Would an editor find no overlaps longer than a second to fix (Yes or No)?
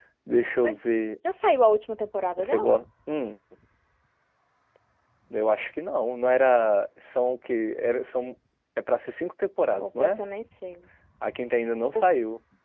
Yes